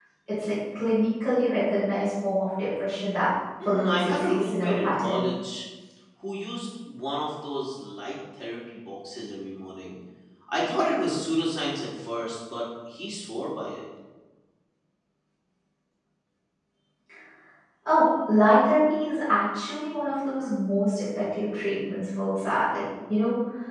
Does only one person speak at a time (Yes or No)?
No